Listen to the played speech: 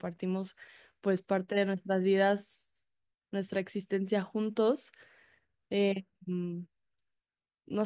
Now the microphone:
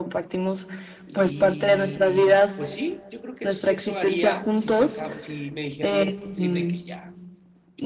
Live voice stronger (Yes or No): No